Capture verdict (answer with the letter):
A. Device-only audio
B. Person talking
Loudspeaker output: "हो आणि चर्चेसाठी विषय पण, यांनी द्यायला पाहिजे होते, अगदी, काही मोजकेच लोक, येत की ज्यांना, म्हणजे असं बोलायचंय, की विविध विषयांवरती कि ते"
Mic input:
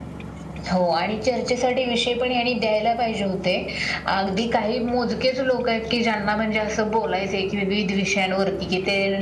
A